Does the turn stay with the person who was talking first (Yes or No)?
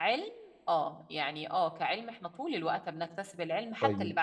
No